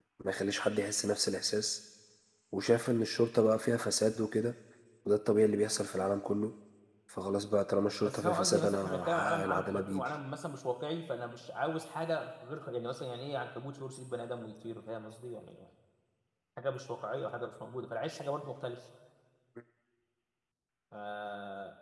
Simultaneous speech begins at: 8.0 s

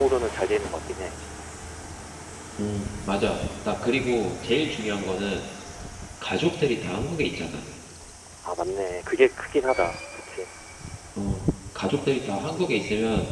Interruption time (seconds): none

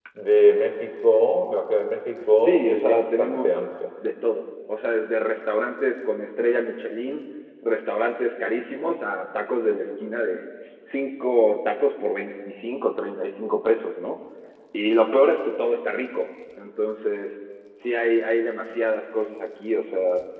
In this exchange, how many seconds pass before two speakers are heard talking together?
2.4 s

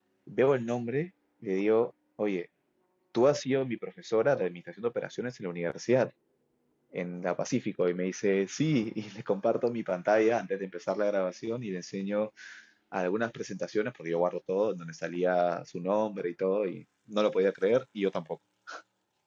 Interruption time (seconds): none

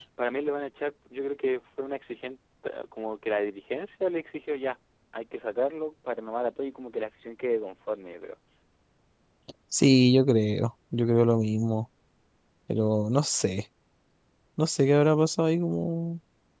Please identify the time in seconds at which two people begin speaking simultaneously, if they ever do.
none

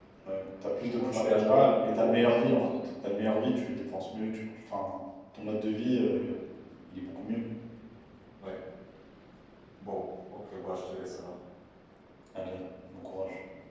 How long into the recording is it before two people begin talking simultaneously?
1.0 s

